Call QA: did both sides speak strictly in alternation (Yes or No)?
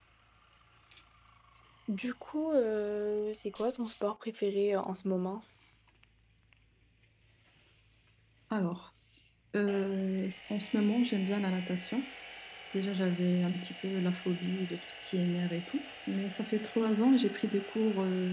Yes